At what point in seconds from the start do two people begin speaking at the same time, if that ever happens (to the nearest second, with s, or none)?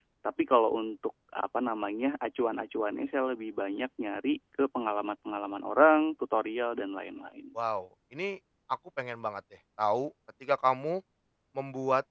none